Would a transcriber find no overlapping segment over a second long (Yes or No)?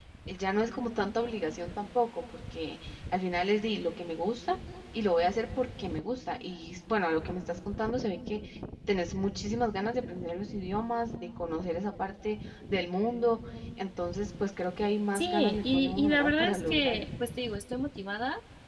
No